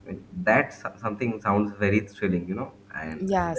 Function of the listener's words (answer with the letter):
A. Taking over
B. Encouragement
A